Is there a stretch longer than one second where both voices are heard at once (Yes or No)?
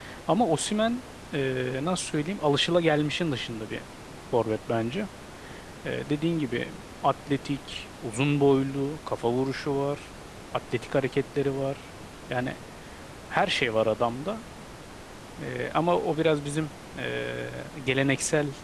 No